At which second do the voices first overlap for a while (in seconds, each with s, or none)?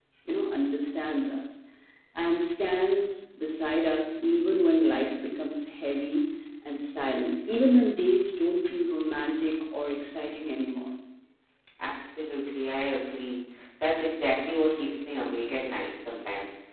none